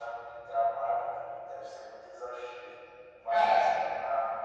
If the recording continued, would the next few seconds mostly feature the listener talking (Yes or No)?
No